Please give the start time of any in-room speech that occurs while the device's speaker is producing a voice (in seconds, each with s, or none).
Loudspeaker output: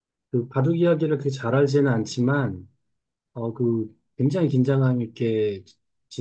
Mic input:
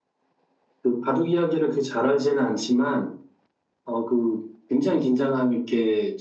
none